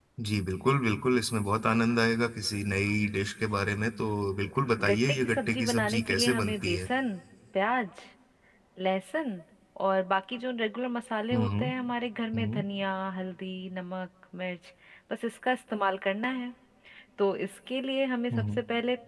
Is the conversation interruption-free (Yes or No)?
No